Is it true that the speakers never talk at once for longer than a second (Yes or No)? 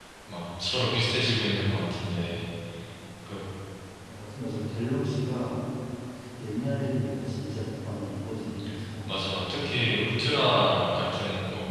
Yes